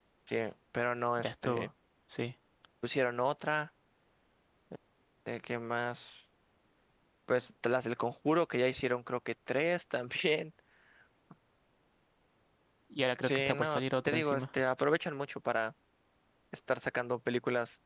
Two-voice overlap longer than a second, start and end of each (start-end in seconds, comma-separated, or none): 13.2-14.4